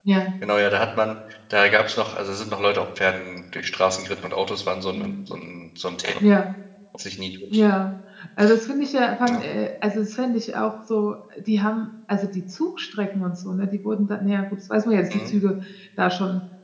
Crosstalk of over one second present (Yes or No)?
No